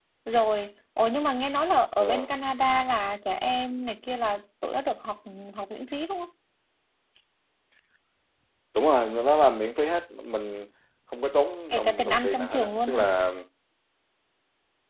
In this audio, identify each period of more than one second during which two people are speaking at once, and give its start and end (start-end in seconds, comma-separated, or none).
11.7-13.0